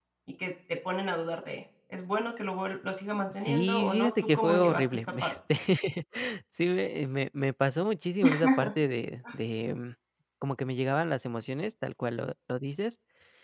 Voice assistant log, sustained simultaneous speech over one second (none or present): present